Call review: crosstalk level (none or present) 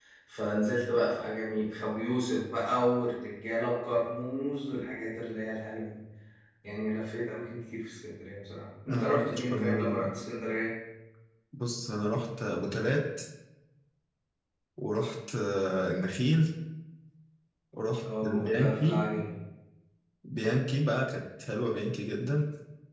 present